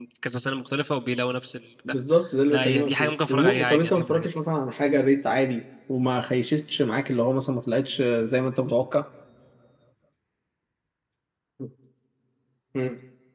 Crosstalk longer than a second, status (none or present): present